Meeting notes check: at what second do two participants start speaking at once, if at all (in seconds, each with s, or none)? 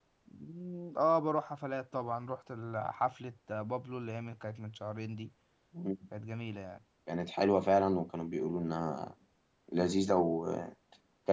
none